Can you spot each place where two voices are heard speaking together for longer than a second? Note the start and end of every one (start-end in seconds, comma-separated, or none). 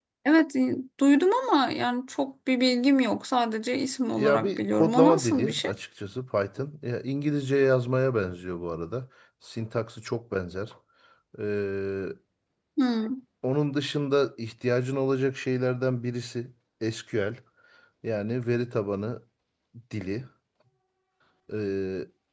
4.1-5.7